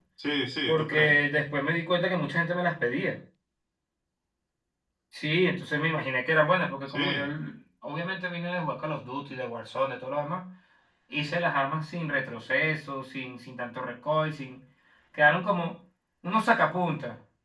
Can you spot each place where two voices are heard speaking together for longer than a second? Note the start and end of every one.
none

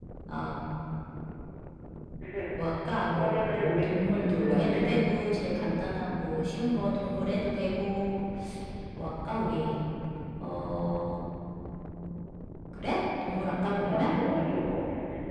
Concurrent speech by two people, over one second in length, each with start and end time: 3.1-4.9

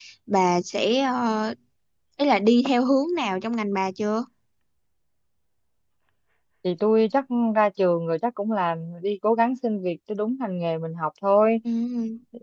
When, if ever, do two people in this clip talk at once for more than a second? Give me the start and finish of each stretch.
none

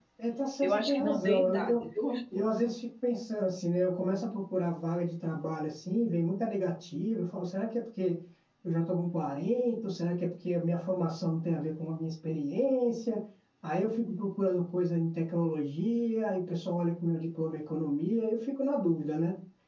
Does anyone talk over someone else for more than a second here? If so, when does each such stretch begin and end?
0.6-1.8

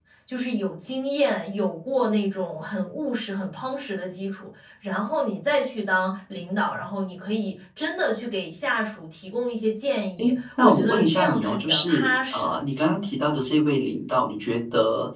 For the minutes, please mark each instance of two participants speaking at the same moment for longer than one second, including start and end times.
10.2-12.6

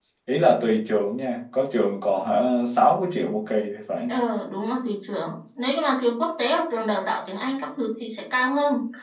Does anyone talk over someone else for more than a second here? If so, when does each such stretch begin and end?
none

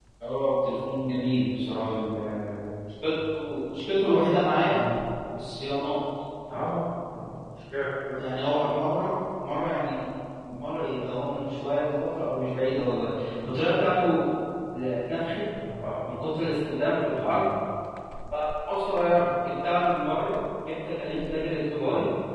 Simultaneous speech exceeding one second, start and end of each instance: none

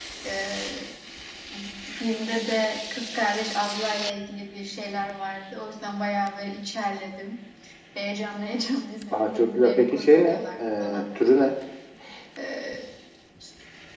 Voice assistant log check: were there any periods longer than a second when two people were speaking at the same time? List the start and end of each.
9.1-11.1

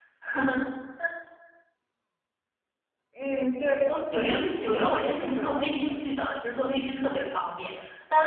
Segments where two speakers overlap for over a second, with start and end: 4.1-6.0

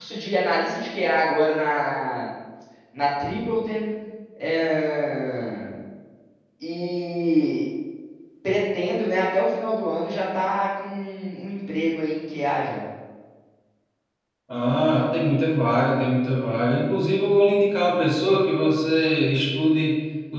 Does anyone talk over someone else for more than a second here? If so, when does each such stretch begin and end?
none

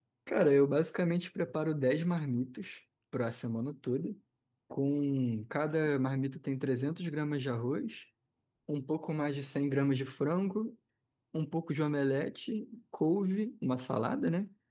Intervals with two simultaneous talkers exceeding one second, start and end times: none

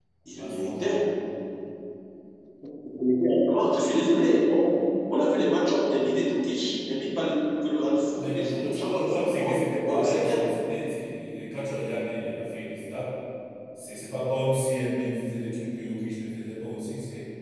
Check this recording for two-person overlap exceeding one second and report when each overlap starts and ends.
8.2-10.5

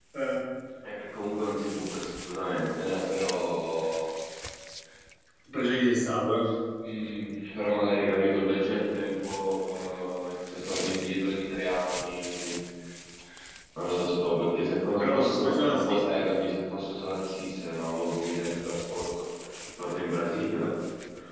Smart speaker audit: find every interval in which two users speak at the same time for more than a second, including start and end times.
14.9-16.2

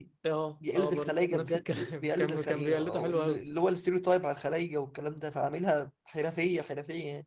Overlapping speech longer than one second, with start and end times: 0.7-3.4

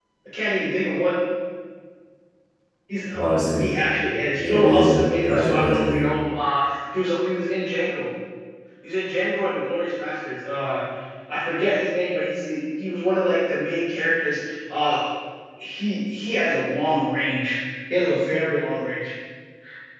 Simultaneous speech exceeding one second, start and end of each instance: 4.4-5.9

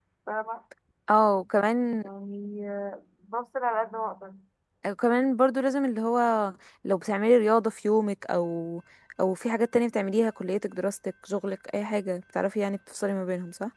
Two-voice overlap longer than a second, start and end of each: none

